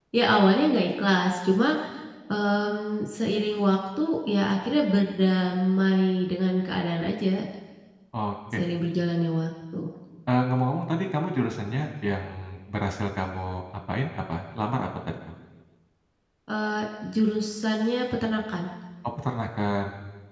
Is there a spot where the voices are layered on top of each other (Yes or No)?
No